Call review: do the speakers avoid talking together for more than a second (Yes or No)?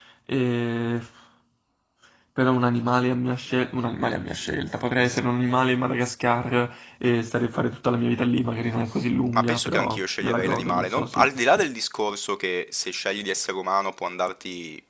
No